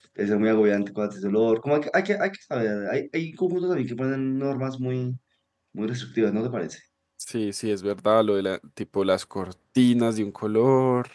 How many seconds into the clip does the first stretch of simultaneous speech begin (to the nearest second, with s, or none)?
none